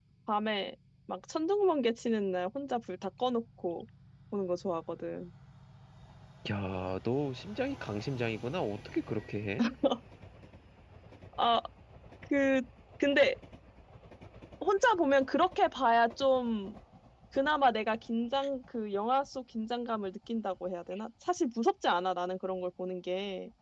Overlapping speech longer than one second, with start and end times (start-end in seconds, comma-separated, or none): none